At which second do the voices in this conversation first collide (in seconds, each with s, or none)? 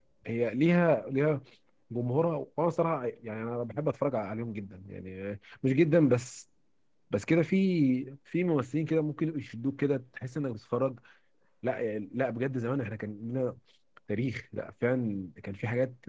none